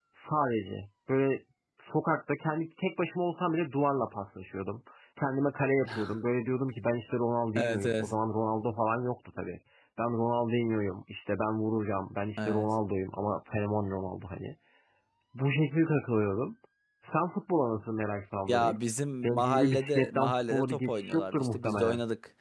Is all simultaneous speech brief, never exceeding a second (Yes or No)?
No